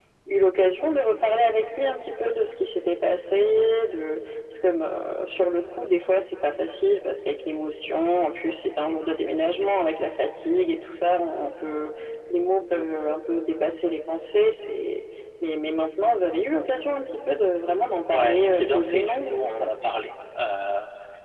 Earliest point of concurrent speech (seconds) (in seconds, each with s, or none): 18.1 s